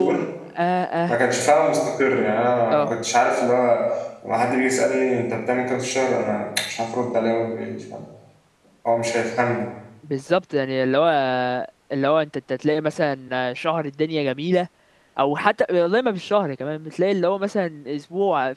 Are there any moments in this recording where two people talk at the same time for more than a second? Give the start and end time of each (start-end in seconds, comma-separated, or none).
none